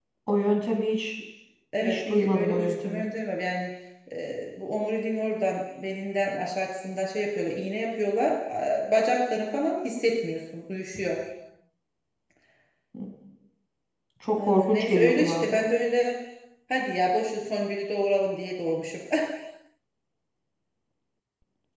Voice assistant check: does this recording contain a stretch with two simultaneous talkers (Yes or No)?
Yes